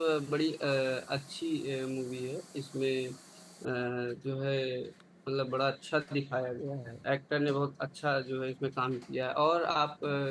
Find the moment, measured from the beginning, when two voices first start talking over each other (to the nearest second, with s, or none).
none